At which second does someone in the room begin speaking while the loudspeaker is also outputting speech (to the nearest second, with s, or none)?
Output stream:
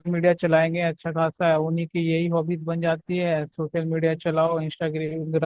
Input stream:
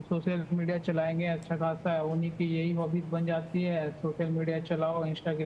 none